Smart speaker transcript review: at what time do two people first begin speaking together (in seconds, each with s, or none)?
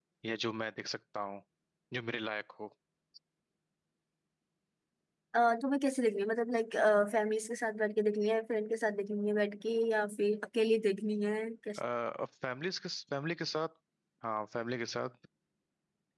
none